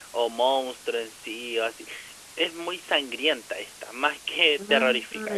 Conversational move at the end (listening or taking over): listening